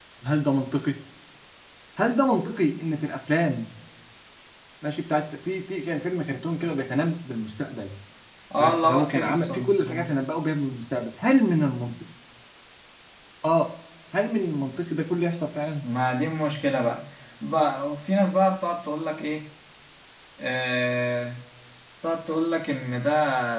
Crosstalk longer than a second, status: present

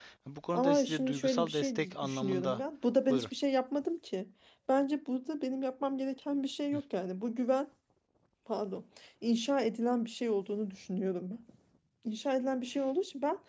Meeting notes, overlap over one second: present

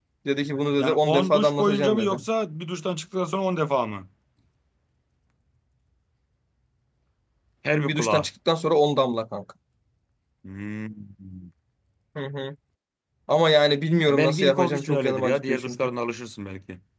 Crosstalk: present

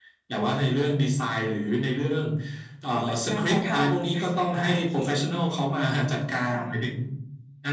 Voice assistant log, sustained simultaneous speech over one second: present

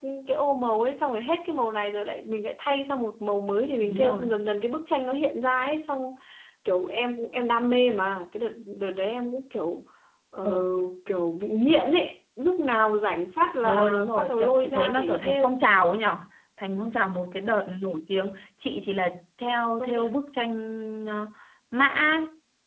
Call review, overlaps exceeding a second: present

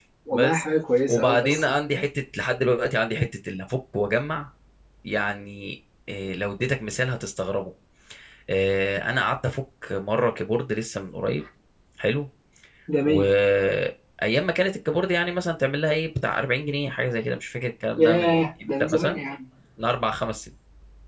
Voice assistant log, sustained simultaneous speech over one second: present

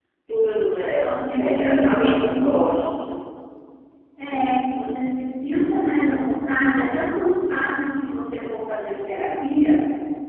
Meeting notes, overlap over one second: present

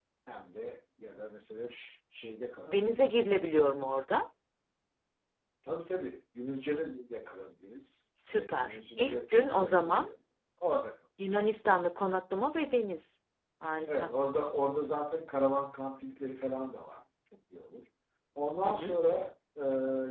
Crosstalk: present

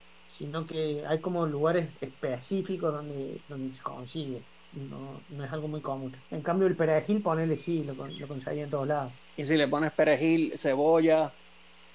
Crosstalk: none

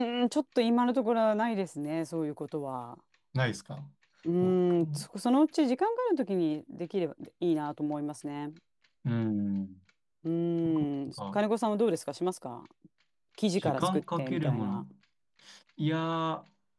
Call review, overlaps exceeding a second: present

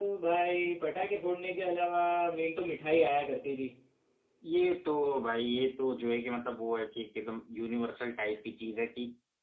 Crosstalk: none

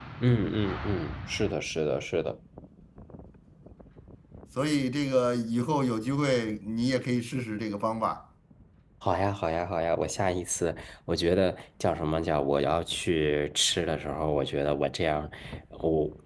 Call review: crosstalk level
none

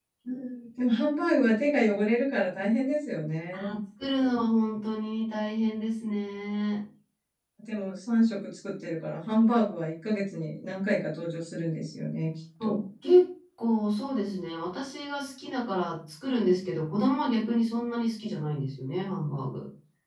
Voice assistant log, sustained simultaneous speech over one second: none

